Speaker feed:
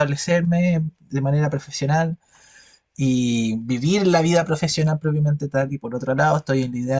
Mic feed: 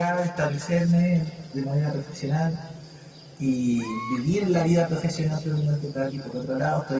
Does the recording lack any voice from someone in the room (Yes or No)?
Yes